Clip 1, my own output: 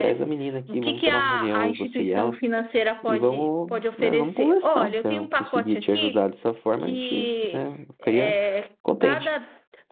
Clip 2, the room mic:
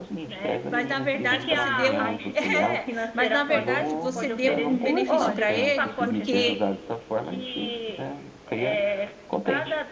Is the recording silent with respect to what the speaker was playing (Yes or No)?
No